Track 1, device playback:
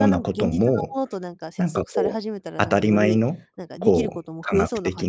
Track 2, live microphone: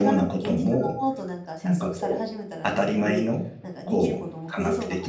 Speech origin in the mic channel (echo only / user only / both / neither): echo only